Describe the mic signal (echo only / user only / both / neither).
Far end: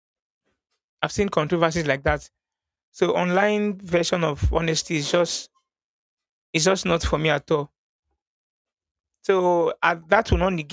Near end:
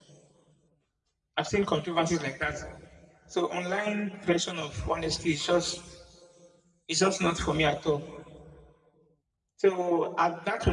echo only